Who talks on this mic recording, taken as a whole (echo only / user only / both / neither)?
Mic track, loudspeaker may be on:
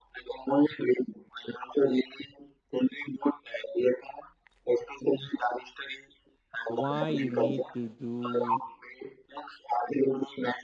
both